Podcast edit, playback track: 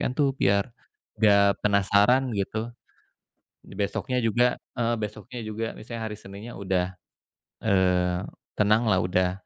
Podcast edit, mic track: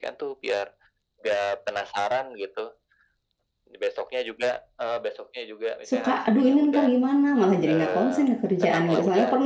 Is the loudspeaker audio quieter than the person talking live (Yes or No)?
Yes